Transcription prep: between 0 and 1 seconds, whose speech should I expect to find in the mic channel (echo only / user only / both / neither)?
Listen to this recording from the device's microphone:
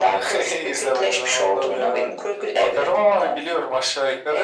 echo only